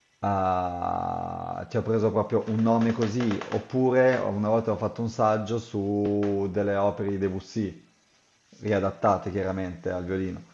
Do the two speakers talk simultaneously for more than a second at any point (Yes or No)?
No